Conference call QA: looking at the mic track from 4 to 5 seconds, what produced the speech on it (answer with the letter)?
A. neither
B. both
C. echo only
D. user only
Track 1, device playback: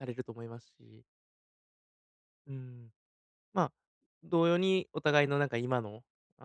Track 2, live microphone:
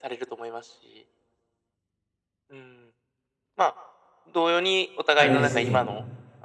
C